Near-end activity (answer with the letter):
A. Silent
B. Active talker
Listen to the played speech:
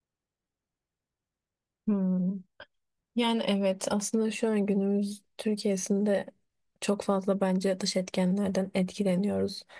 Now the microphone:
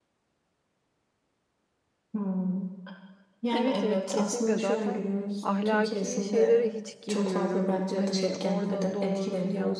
B